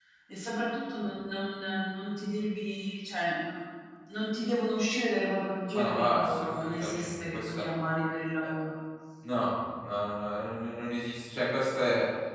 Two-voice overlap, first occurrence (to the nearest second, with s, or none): 6 s